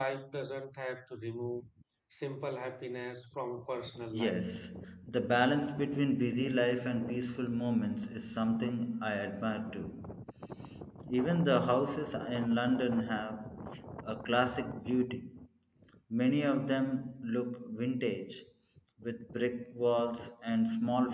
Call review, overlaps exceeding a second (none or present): none